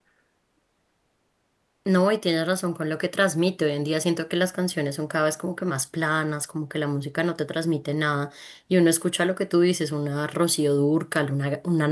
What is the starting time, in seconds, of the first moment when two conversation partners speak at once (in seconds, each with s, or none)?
none